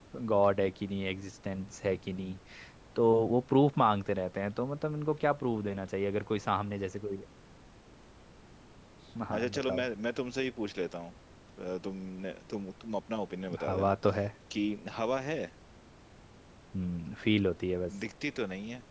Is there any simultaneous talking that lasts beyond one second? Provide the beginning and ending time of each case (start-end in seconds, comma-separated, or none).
none